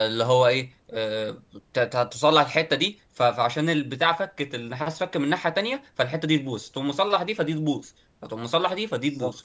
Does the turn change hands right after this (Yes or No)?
No